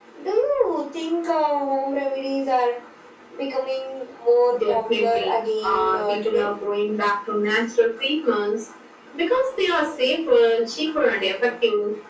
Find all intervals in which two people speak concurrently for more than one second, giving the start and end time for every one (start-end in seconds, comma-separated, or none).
4.7-6.5